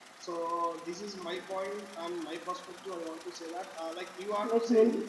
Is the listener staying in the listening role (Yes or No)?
No